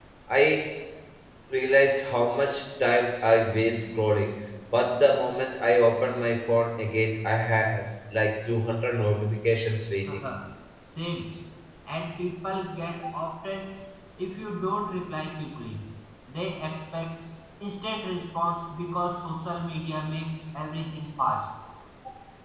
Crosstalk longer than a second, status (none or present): none